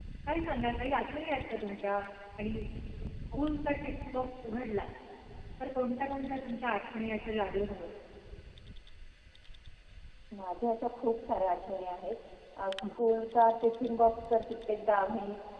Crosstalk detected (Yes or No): No